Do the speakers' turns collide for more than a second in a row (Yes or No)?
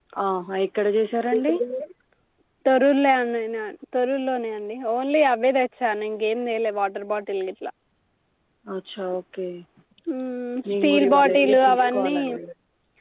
Yes